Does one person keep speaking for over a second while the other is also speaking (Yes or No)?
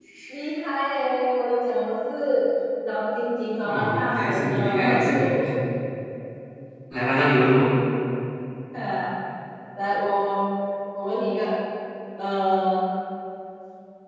Yes